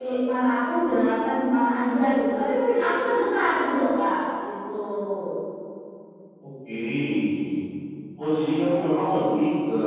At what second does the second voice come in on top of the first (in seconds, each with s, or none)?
none